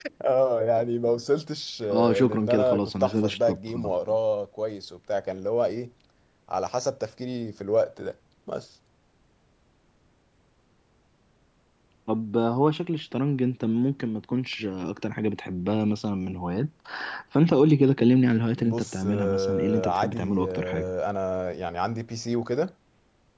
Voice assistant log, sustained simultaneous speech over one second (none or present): present